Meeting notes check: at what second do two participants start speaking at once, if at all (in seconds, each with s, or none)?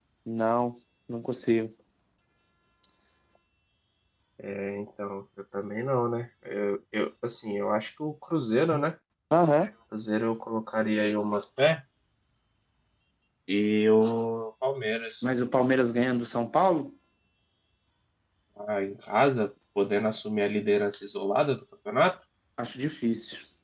none